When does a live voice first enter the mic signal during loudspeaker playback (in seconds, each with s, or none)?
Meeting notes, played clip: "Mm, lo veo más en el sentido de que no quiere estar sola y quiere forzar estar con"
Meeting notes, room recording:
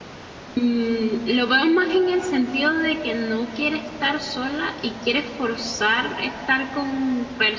none